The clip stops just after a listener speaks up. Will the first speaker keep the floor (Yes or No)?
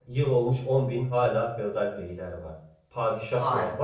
Yes